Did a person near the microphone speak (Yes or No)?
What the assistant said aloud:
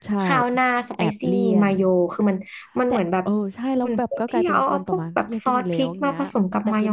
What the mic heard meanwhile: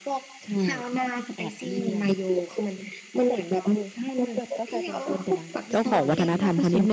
Yes